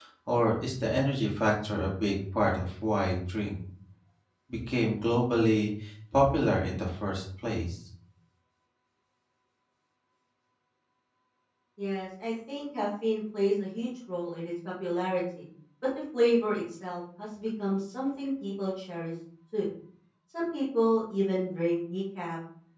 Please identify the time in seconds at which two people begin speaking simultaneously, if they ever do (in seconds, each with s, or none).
none